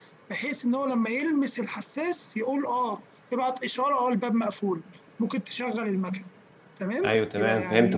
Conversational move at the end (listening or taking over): taking over